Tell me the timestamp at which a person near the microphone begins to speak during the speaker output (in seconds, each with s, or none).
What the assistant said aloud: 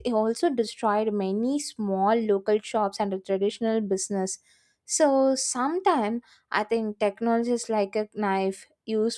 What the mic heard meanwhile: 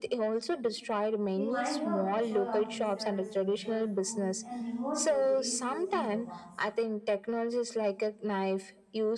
1.4 s